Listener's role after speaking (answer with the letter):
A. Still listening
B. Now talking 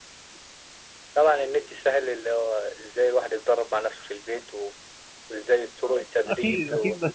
B